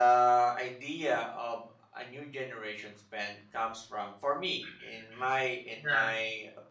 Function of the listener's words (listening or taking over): listening